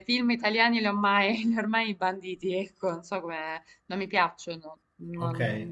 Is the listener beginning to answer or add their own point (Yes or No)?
Yes